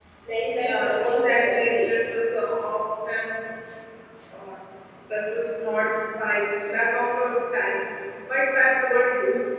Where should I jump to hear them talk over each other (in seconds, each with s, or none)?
0.6 s